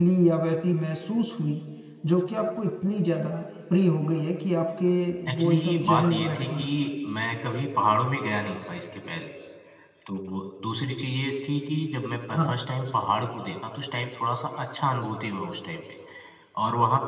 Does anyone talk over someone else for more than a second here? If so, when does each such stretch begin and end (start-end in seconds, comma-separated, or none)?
5.3-6.7